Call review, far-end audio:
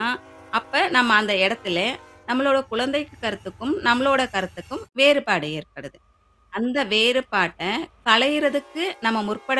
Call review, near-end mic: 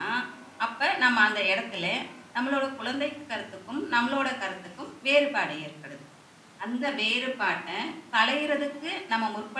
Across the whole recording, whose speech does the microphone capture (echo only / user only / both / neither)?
echo only